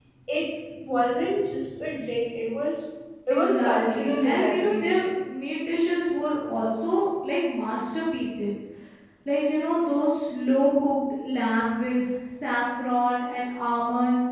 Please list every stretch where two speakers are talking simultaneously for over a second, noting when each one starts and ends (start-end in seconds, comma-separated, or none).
3.3-5.1